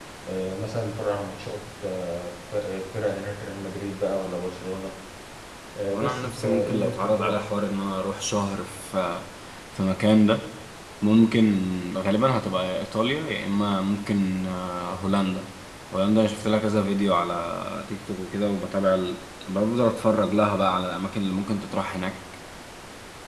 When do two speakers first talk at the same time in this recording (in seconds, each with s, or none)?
5.9 s